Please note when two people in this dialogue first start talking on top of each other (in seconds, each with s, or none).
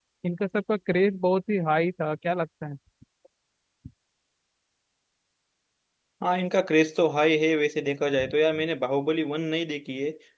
none